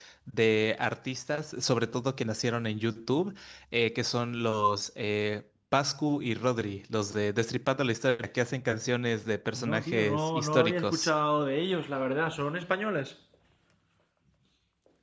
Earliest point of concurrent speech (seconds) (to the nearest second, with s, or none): 10 s